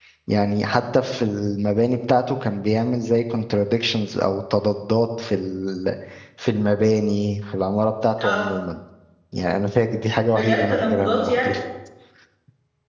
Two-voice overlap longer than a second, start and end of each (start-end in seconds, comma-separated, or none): 10.3-11.5